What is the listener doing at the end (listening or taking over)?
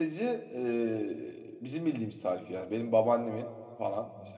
listening